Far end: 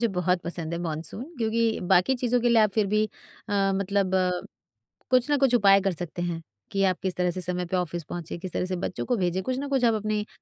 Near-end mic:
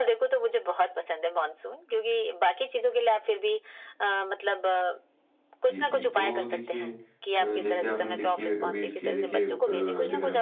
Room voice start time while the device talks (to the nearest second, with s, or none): 6 s